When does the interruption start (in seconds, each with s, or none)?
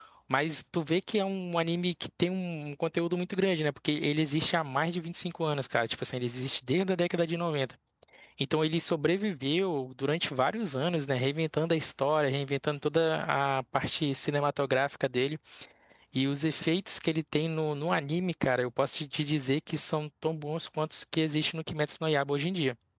none